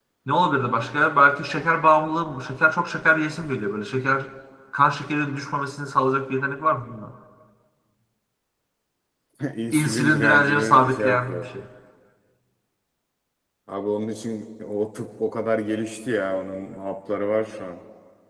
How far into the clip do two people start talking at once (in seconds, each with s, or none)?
9.7 s